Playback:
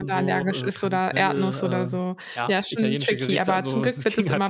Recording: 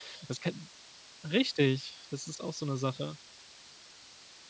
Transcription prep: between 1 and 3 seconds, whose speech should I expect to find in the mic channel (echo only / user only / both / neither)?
user only